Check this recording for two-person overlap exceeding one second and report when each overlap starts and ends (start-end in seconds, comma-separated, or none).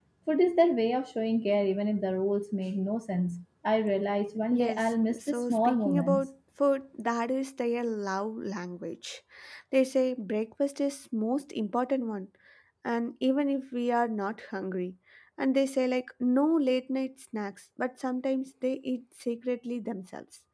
4.5-6.3